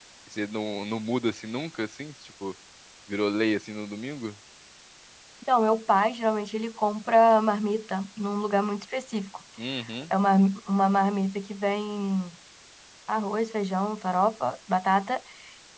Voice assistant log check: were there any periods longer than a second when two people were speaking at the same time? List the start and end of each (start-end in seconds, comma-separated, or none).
none